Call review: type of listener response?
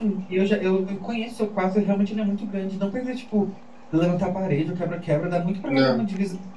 listening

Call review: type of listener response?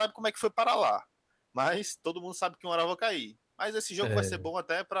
listening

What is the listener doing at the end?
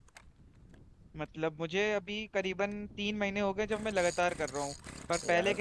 listening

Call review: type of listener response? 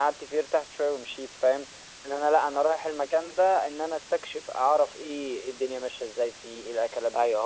taking over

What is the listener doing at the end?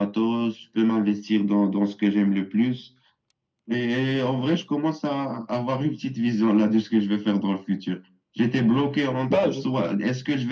listening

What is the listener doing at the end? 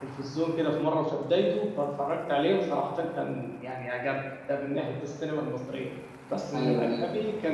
listening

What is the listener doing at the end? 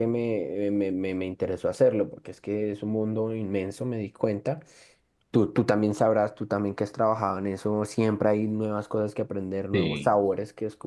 listening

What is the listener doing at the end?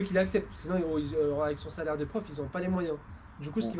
listening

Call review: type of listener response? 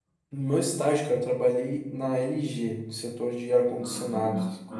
taking over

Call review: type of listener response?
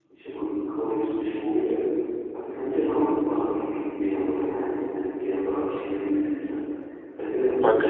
taking over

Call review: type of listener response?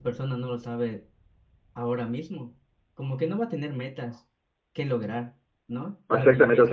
taking over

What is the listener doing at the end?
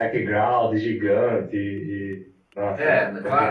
taking over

